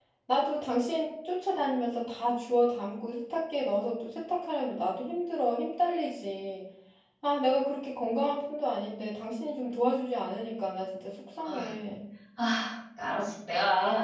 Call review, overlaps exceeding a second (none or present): none